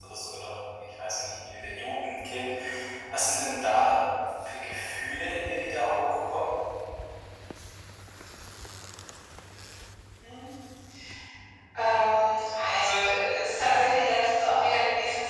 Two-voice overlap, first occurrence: none

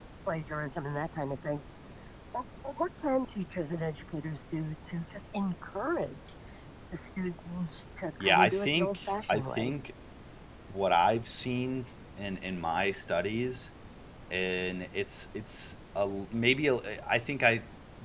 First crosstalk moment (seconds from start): 8.2 s

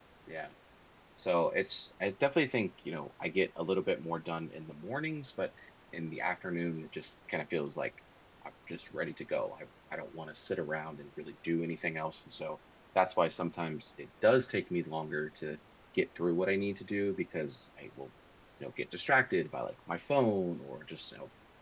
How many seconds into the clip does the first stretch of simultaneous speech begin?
none

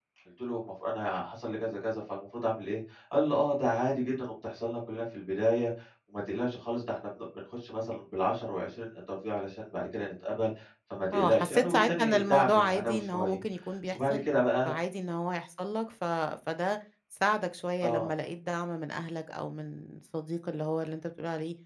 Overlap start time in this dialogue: 11.1 s

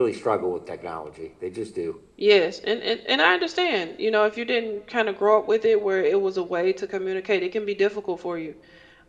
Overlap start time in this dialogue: none

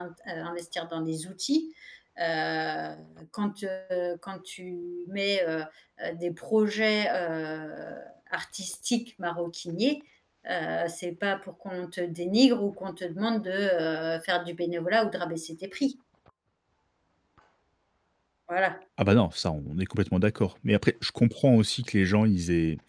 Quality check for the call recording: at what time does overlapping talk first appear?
none

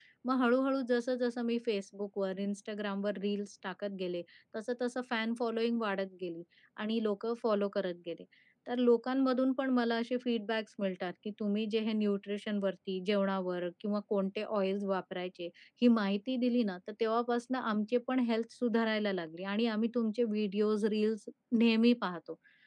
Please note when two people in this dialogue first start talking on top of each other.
none

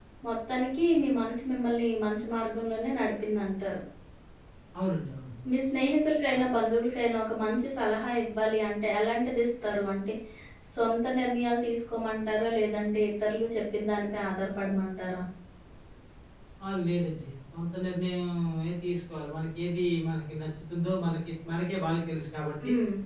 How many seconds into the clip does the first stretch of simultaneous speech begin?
none

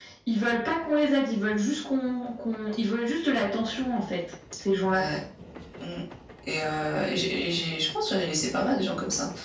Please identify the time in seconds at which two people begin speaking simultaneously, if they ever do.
none

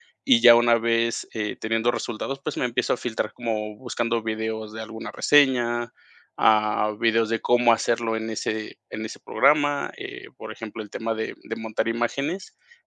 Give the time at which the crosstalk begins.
none

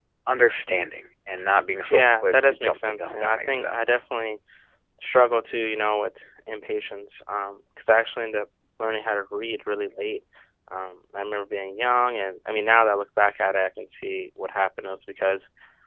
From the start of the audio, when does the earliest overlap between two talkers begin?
1.9 s

